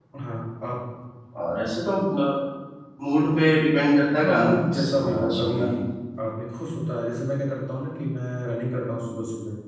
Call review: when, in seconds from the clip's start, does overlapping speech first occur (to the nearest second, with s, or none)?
4 s